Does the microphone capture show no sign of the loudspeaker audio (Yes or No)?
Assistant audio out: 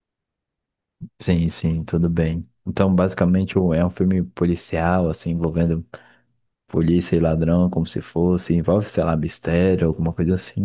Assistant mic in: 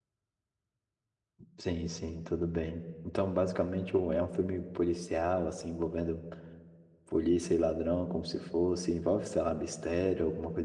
No